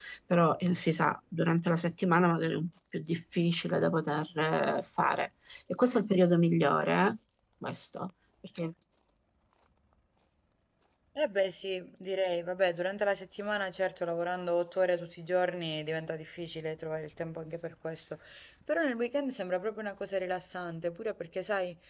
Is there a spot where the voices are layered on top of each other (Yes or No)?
No